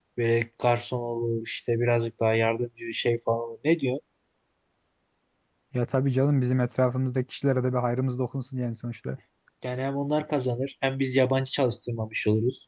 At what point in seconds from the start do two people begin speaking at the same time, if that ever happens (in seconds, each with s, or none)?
none